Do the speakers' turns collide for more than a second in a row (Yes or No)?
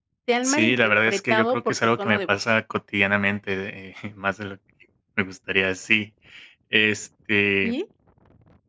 Yes